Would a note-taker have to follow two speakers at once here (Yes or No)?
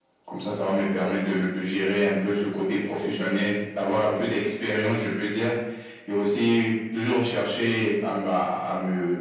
No